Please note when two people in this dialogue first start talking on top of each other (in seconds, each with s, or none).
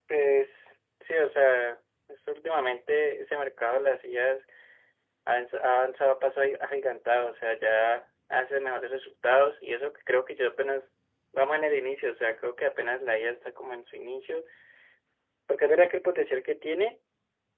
none